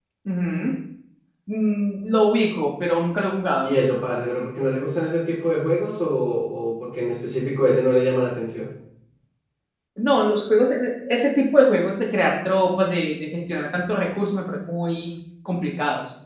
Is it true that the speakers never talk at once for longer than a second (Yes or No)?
Yes